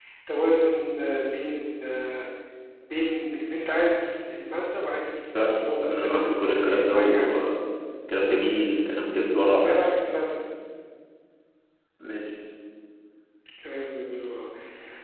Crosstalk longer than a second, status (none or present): present